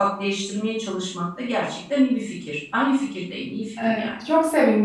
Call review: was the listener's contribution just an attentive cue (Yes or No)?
No